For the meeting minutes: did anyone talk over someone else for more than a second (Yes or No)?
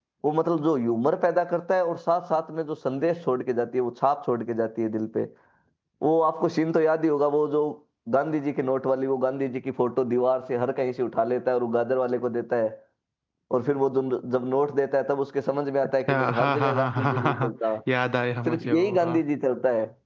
Yes